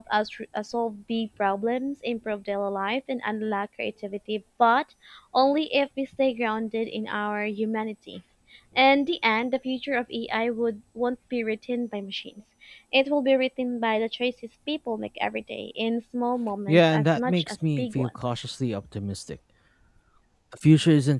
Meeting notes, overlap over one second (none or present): present